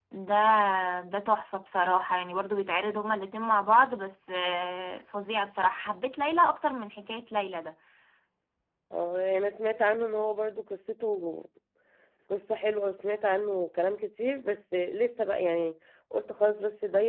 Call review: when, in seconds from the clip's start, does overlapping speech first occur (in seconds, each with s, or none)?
none